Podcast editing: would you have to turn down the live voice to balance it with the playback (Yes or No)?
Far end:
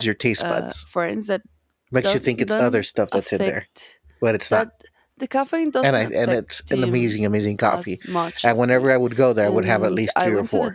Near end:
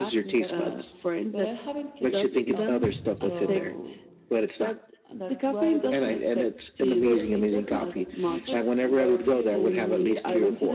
No